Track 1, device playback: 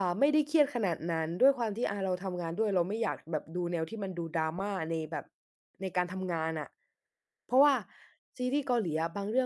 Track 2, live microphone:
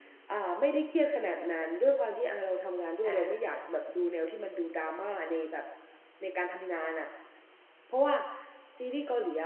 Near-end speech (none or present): present